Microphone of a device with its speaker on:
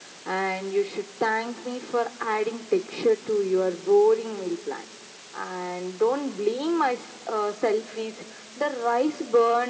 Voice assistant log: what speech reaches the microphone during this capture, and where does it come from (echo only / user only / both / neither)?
echo only